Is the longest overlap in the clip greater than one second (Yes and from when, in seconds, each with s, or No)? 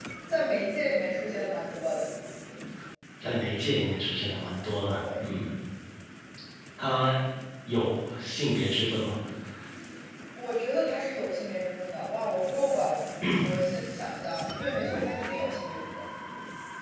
No